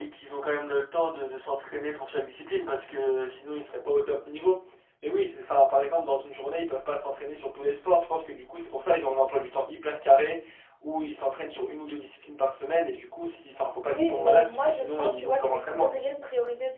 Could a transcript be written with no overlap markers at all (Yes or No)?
No